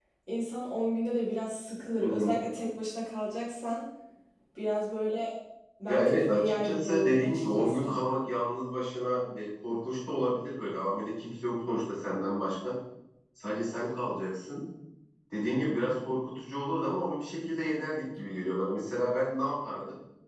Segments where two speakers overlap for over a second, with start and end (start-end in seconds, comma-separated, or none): 5.9-8.0